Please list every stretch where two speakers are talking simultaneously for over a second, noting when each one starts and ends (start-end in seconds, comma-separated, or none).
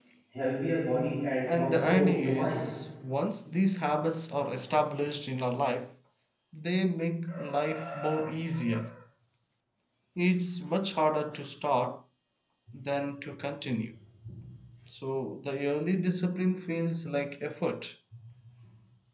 1.5-2.7